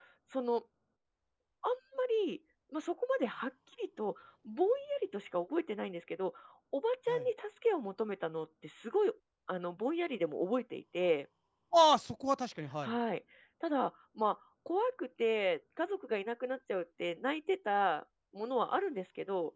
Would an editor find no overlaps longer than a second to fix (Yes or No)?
Yes